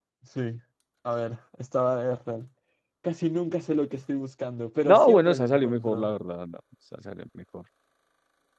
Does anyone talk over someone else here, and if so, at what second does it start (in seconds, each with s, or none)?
4.8 s